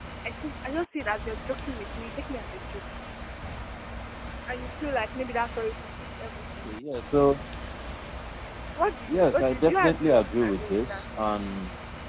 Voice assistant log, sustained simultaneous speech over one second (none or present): present